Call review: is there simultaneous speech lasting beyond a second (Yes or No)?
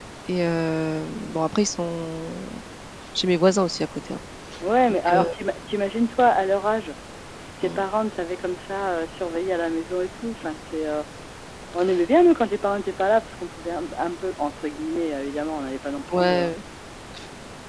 No